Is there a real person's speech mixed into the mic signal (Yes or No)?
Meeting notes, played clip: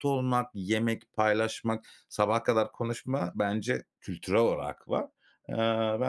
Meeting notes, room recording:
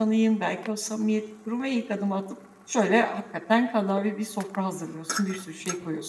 Yes